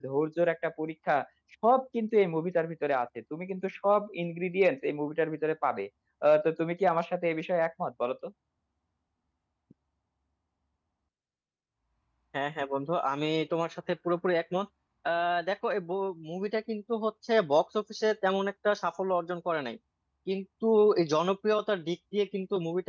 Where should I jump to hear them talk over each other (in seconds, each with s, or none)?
none